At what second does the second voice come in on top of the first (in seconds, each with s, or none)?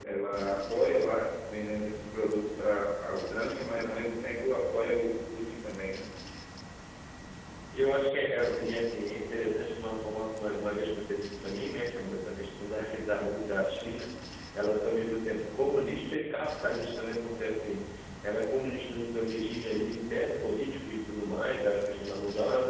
none